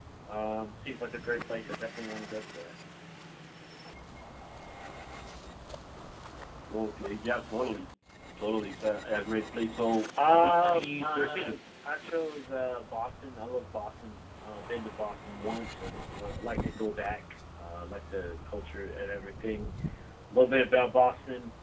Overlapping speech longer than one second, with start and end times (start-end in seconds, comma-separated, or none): 10.3-11.6